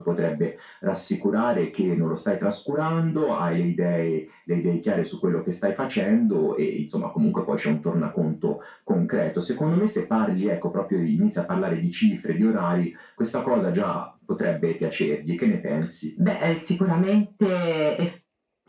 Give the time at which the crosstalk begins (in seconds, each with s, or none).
none